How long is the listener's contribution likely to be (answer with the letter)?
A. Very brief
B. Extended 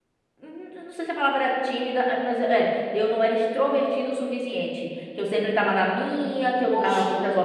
B